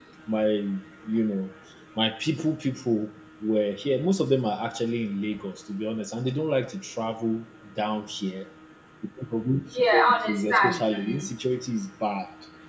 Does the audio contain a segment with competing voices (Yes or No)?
Yes